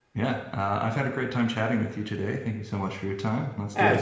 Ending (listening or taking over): taking over